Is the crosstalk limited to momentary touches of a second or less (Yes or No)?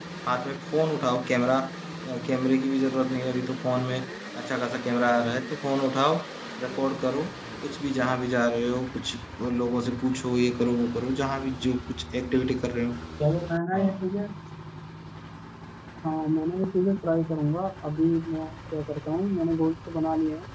Yes